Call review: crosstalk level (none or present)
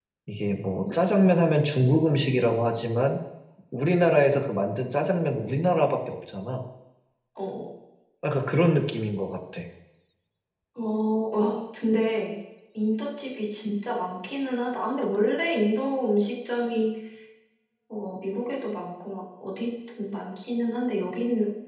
none